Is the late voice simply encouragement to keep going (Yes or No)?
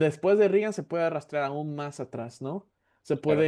Yes